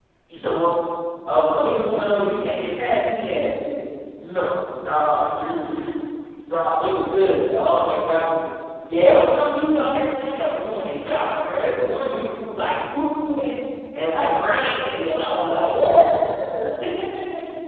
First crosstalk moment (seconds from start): none

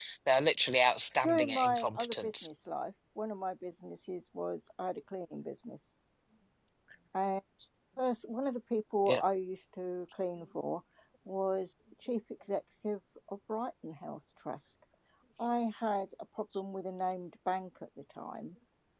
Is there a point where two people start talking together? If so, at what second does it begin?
1.2 s

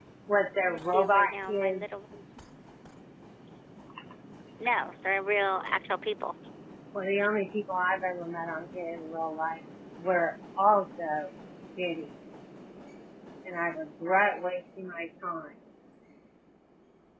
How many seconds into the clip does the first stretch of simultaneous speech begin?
0.6 s

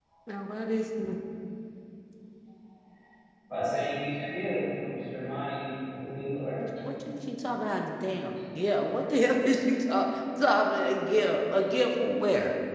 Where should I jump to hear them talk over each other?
none

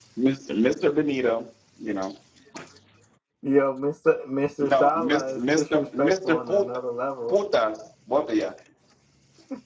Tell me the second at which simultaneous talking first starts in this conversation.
4.6 s

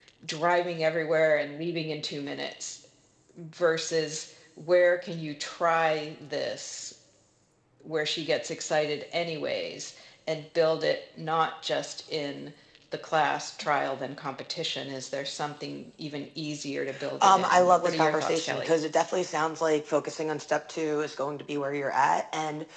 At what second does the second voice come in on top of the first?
17.2 s

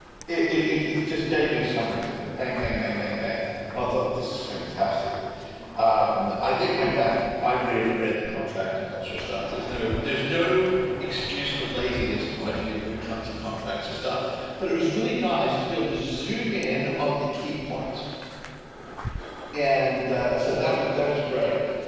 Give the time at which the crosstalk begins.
none

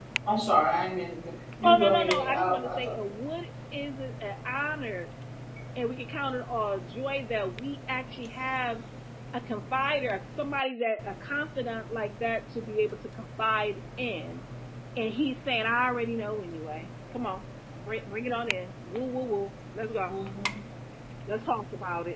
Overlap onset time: 1.6 s

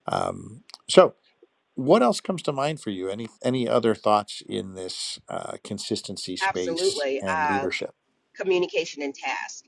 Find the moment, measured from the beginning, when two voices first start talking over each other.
6.4 s

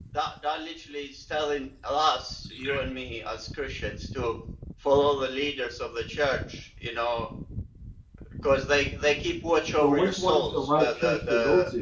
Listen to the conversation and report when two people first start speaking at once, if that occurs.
9.8 s

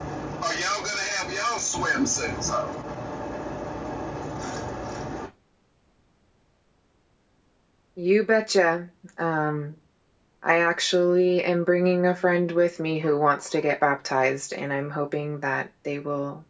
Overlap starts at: none

